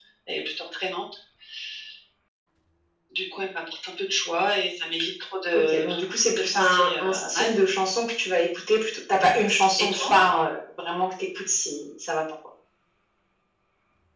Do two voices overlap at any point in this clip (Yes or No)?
Yes